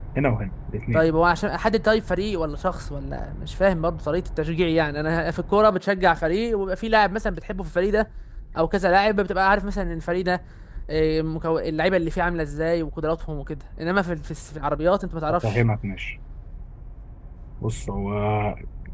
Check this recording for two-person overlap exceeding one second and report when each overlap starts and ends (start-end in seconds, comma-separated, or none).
none